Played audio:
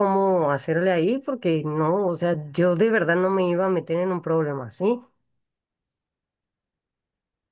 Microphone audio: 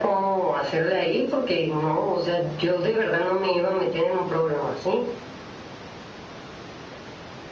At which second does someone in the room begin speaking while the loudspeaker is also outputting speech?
none

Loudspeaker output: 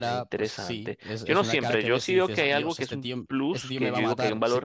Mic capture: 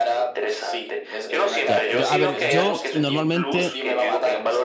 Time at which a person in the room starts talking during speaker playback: 1.6 s

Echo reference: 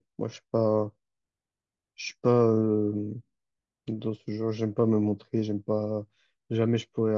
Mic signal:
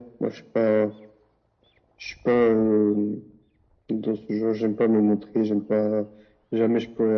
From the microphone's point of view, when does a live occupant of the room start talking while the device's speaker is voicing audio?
none

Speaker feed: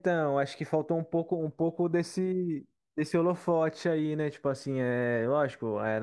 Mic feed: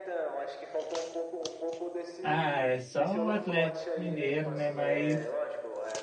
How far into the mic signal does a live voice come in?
2.2 s

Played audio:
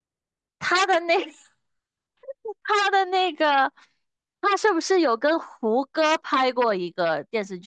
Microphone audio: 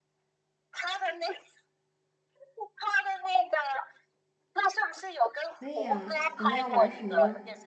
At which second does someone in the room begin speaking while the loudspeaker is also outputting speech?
5.6 s

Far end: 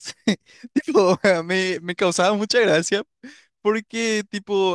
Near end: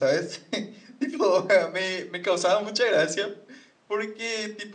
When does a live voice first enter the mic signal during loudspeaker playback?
none

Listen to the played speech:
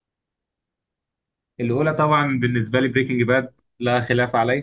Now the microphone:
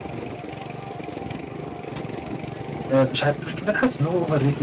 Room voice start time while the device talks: 2.9 s

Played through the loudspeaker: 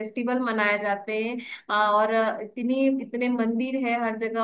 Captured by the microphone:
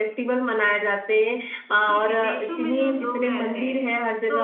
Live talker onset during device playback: 1.9 s

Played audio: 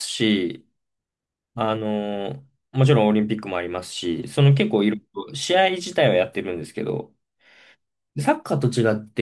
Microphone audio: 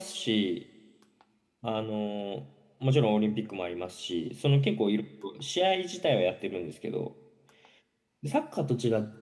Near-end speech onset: none

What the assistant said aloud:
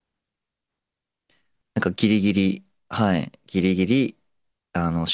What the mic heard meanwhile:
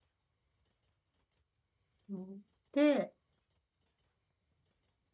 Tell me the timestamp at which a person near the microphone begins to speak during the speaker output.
2.1 s

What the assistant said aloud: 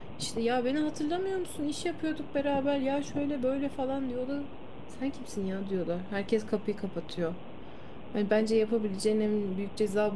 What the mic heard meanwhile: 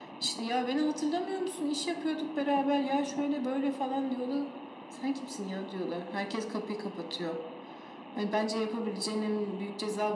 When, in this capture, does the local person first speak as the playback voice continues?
none

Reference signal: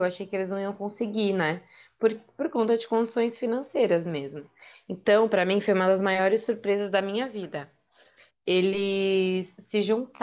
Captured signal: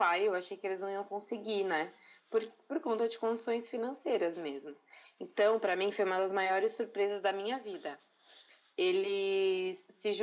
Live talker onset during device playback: none

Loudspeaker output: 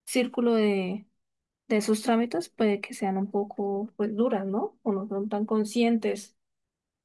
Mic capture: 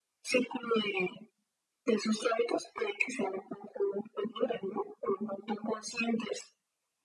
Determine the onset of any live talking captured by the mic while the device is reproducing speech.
none

